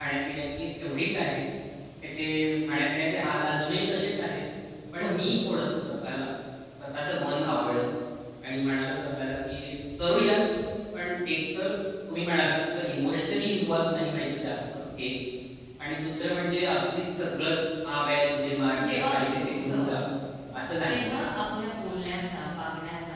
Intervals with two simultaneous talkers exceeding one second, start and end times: 18.7-19.9

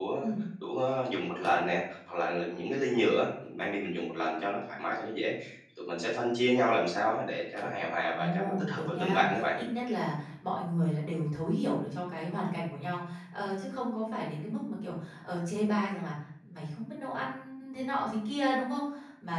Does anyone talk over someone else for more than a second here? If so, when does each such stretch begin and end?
8.1-9.6

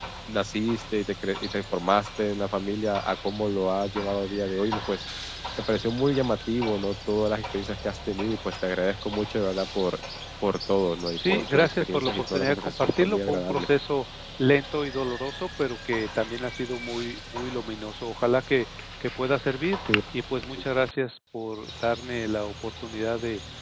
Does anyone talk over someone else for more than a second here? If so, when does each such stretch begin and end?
11.1-13.7

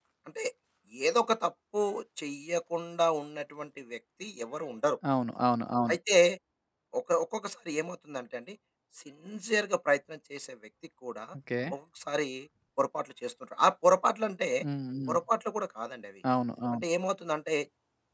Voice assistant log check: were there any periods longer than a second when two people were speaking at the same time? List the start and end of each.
none

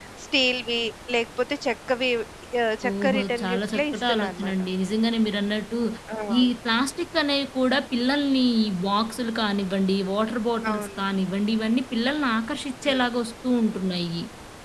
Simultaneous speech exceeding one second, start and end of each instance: 2.9-4.5

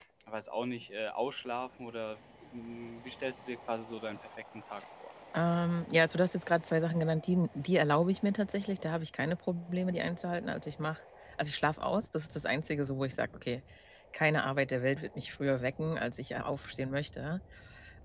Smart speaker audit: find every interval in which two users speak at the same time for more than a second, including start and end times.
none

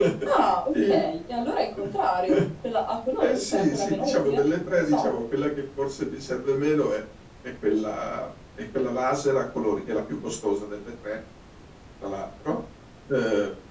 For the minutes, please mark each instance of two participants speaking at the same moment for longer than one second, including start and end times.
3.2-5.0

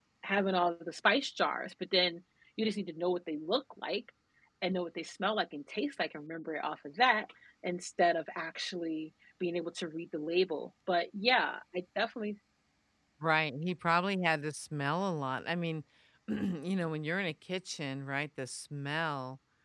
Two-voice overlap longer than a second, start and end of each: none

